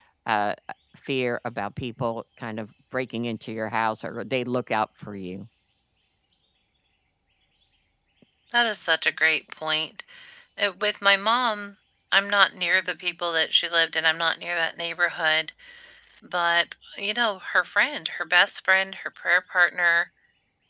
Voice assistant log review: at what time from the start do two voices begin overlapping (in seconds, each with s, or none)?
none